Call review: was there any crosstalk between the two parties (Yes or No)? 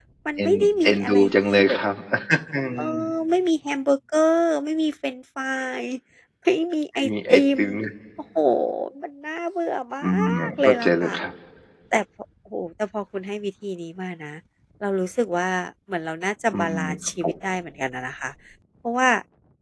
Yes